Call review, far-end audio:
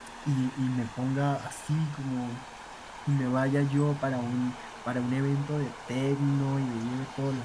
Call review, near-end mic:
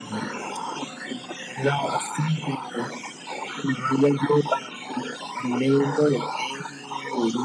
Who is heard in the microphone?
echo only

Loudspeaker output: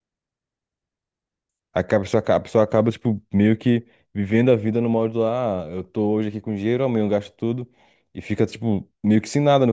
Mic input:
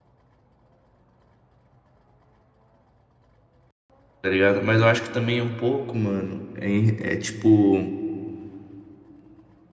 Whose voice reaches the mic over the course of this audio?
user only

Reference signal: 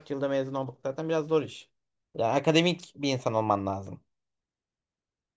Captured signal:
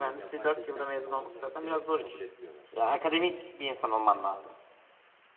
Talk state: both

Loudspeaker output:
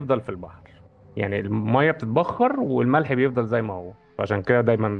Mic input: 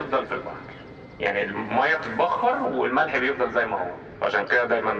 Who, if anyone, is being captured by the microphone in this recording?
echo only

